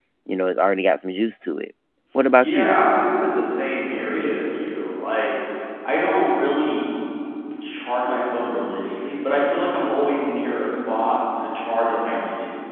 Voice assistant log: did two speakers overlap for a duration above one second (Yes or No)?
No